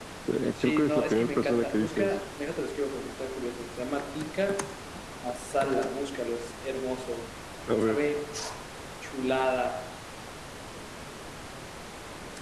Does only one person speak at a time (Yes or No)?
No